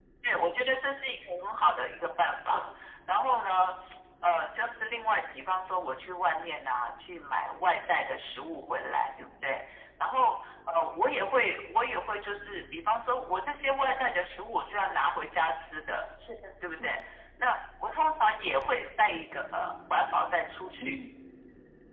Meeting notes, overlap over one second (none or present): none